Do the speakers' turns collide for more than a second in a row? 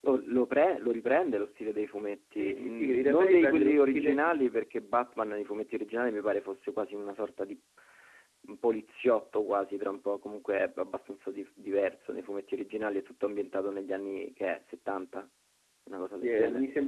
Yes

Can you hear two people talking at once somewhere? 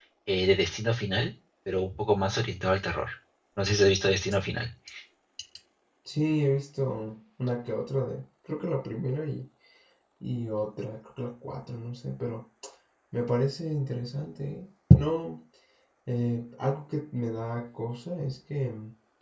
No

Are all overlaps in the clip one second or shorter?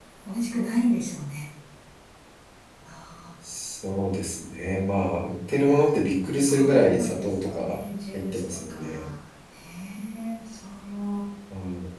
No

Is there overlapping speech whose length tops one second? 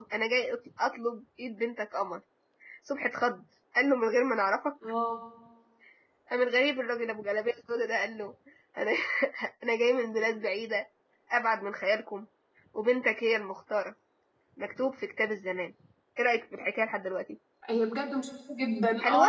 No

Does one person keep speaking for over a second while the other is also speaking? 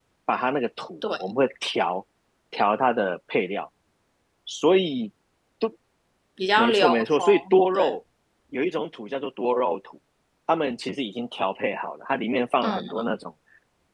Yes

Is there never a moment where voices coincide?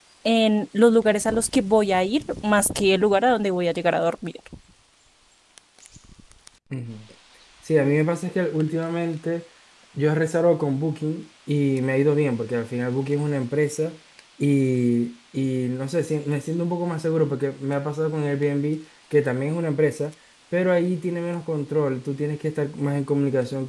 Yes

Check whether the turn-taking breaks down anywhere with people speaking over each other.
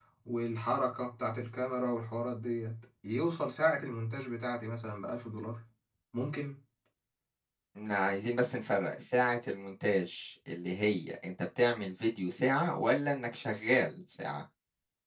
No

